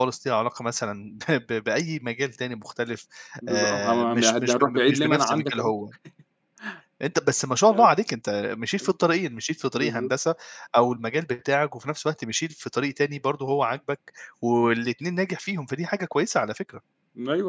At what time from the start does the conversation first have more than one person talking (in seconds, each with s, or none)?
3.5 s